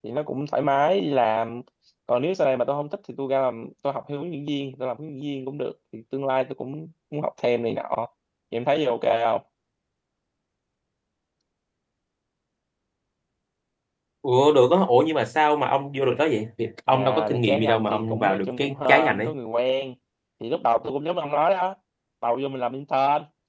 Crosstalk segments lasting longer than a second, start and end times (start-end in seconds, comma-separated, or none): 16.9-19.3